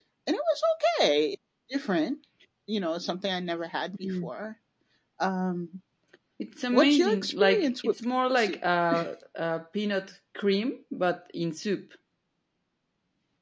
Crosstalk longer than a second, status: present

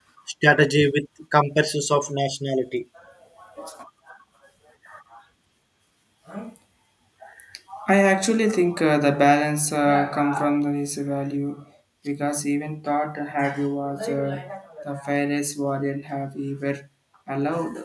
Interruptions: none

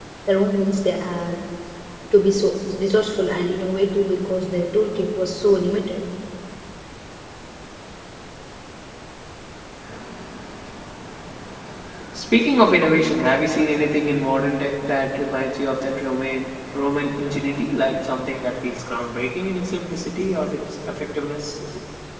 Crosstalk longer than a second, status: none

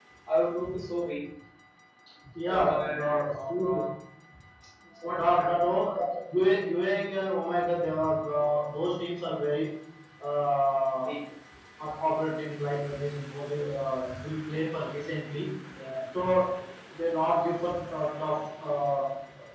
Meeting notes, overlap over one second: present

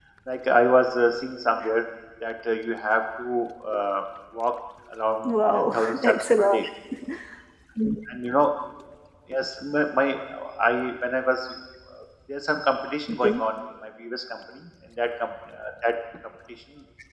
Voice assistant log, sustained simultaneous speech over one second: present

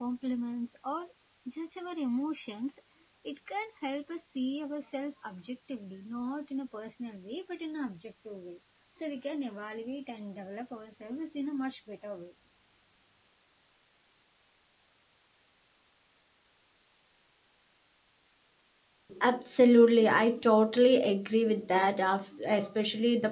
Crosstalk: none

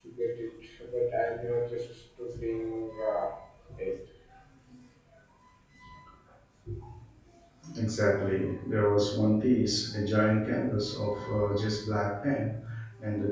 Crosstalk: none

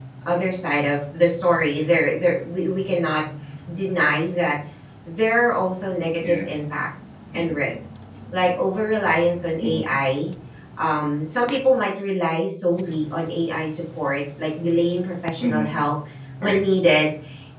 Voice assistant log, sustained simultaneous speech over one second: none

